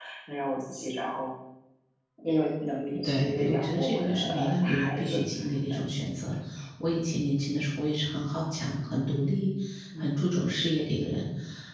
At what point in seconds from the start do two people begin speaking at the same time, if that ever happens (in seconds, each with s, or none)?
3.0 s